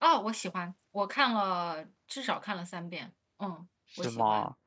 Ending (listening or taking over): taking over